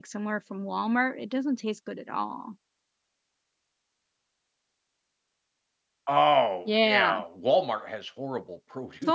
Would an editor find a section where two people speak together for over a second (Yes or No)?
No